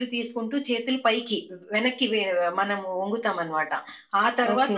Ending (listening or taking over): listening